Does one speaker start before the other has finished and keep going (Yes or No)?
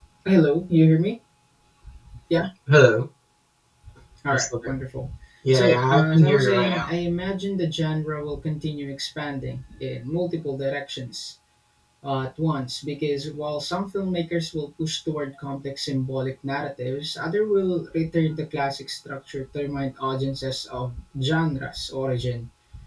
Yes